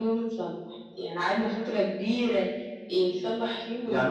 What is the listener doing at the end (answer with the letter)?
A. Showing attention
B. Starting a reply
B